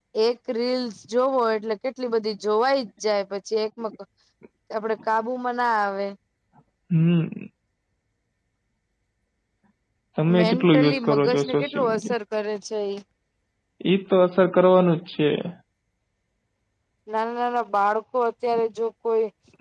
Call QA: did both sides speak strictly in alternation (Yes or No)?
No